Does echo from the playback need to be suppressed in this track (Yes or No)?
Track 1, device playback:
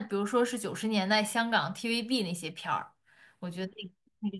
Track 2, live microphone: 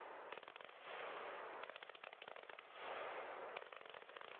No